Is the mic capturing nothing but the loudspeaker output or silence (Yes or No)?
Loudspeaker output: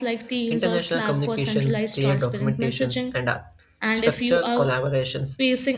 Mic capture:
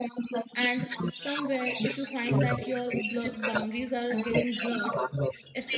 No